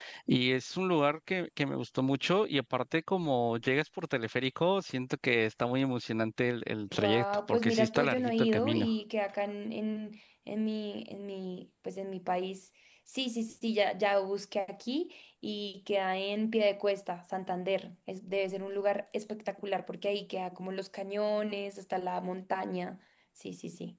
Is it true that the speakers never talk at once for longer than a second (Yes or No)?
No